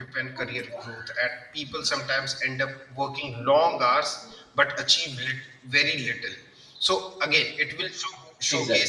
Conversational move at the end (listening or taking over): listening